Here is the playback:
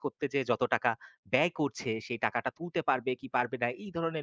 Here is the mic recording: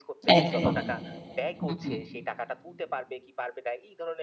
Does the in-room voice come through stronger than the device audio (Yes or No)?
Yes